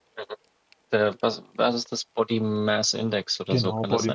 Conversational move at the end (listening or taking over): taking over